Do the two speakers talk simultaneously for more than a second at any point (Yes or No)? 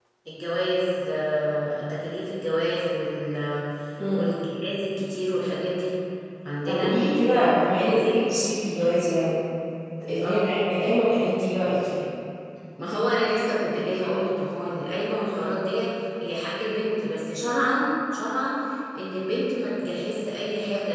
Yes